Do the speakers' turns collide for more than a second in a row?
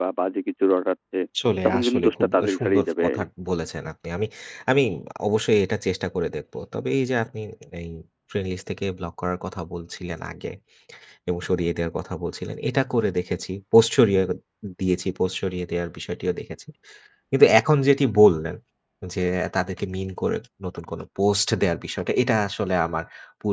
Yes, from 1.6 s

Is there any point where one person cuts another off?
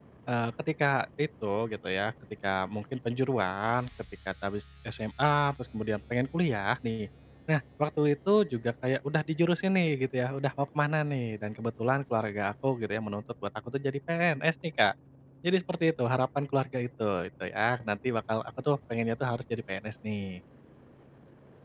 No

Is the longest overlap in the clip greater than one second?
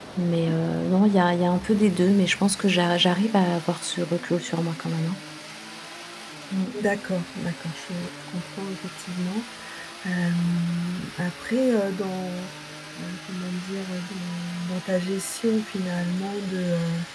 No

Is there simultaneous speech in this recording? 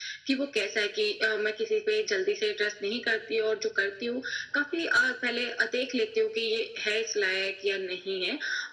No

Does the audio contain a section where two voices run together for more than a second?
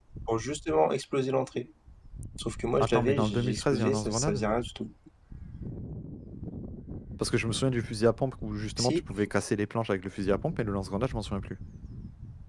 Yes, from 2.8 s

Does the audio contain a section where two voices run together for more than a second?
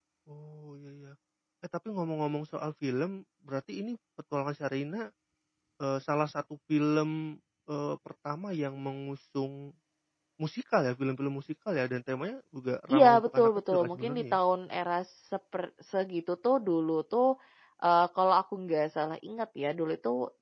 Yes, from 12.9 s

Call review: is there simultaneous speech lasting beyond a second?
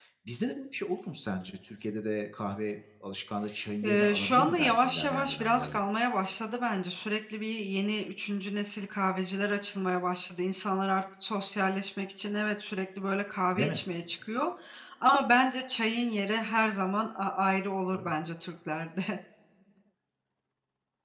Yes, from 3.8 s

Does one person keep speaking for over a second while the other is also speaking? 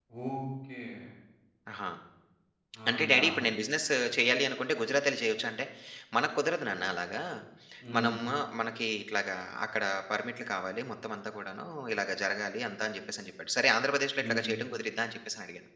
No

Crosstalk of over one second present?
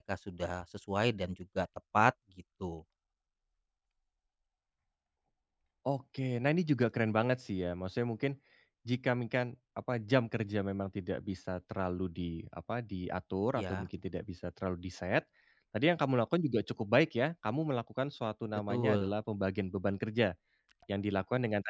No

